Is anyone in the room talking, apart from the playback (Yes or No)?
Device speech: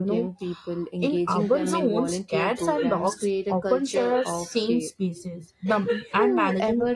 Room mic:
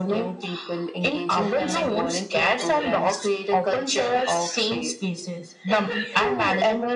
No